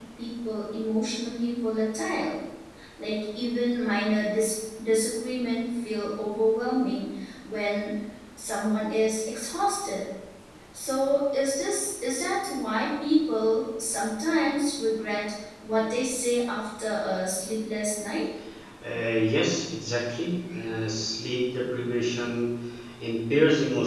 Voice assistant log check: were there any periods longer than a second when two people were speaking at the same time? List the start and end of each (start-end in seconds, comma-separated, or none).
none